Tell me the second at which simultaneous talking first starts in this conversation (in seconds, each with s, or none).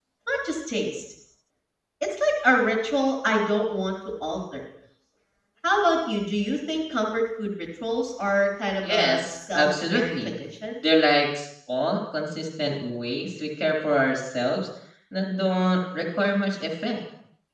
8.8 s